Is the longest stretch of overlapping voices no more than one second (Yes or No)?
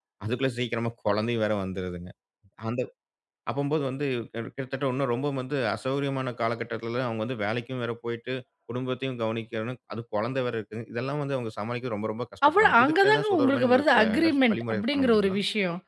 No